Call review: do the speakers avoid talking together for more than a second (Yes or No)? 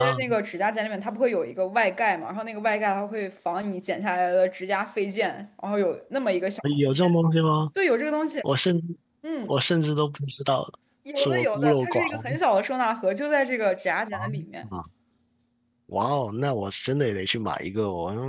No